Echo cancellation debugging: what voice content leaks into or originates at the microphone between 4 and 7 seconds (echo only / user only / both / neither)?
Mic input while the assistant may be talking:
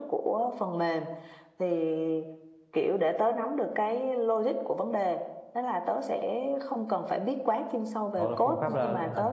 echo only